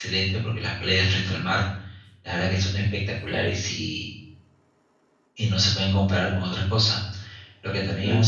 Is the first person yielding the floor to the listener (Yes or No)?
No